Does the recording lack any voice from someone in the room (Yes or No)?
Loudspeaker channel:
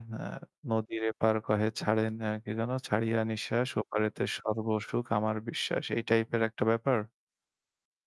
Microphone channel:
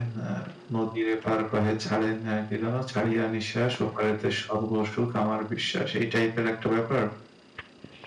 Yes